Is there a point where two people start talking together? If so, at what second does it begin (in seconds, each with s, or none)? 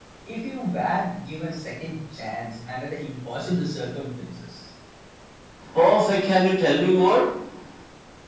none